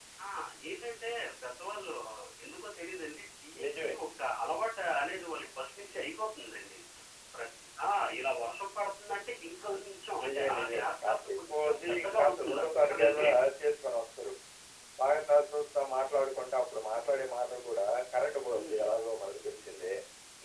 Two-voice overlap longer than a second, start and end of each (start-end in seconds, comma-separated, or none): 10.2-13.2